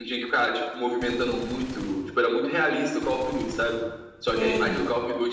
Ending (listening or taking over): listening